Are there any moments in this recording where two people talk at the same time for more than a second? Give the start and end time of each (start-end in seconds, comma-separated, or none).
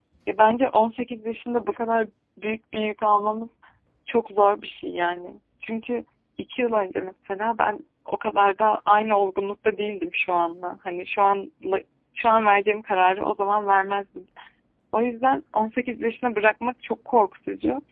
none